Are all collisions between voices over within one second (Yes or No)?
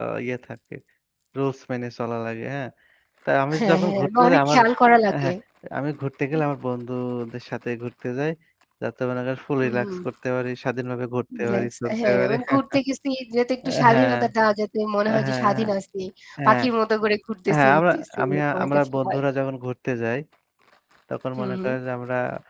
No